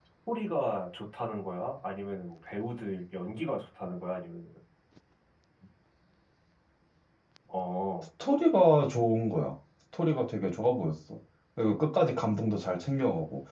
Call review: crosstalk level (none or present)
none